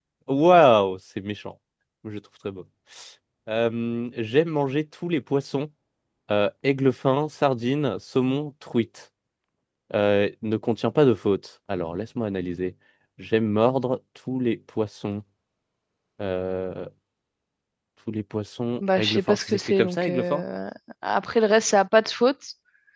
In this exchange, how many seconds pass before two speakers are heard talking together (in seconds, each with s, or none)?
18.8 s